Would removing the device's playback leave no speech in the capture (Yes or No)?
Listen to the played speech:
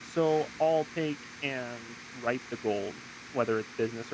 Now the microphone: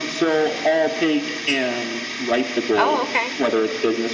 No